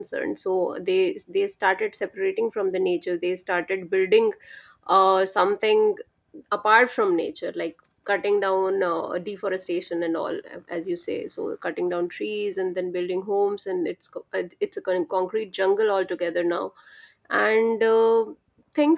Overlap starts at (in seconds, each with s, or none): none